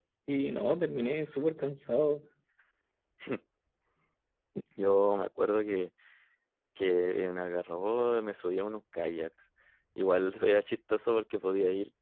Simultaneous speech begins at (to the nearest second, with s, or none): none